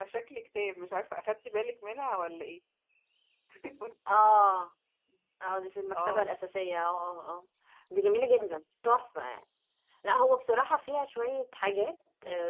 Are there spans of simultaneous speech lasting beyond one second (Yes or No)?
No